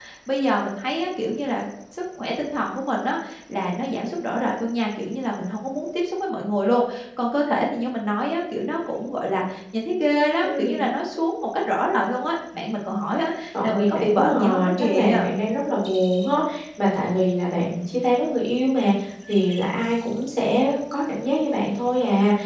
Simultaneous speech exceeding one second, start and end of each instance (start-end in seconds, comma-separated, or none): 13.6-15.3